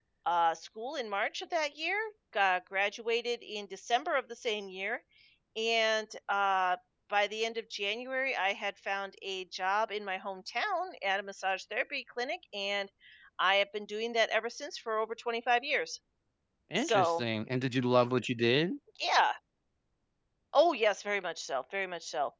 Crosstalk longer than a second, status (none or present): none